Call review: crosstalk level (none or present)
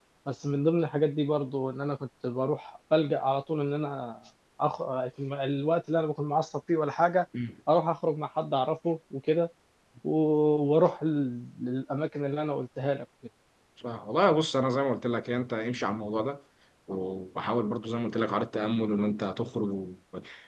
none